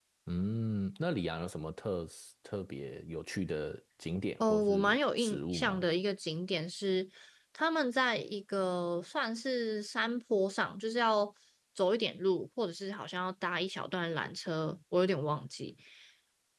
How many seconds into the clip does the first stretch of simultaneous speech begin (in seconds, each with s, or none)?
4.4 s